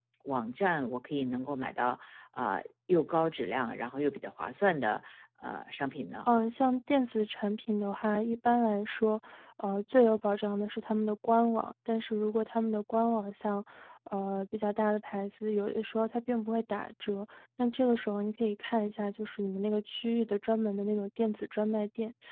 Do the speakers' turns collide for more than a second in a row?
No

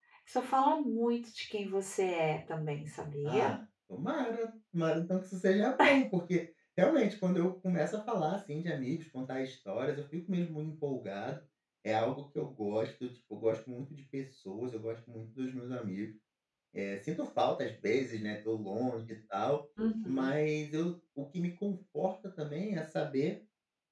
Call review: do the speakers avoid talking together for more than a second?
Yes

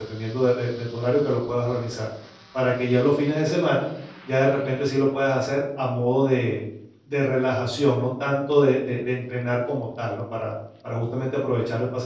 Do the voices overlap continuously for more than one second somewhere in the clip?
No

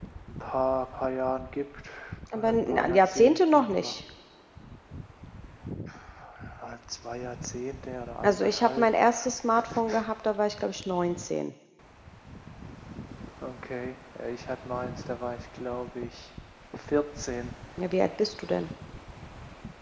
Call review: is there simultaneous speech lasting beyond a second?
Yes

